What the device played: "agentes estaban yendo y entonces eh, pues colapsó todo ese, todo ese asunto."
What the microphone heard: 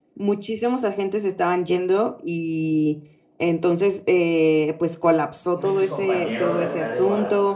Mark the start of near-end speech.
5.5 s

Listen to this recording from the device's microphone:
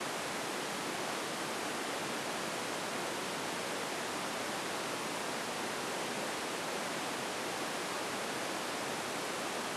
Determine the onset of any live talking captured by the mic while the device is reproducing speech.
none

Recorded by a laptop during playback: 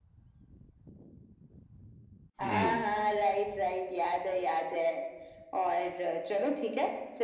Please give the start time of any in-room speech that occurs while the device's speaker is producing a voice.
2.5 s

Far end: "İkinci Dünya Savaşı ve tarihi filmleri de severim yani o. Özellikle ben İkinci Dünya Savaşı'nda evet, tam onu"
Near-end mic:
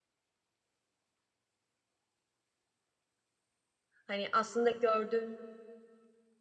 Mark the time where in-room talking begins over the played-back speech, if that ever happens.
4.1 s

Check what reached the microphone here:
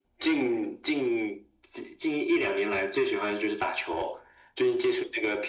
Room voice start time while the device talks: none

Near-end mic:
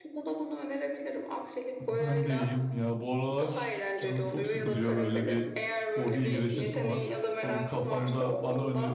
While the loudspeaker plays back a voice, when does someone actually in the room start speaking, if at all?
1.8 s

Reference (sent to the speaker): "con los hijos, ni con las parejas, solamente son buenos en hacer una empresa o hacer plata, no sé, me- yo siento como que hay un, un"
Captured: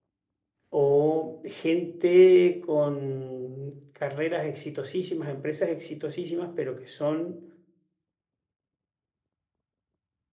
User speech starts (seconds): 0.7 s

